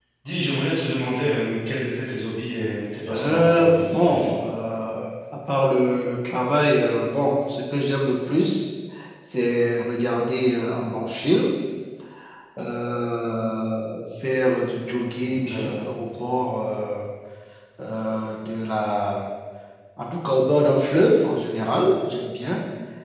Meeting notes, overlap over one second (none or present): present